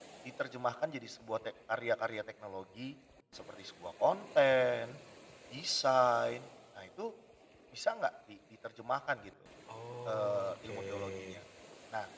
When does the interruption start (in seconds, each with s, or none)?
10.1 s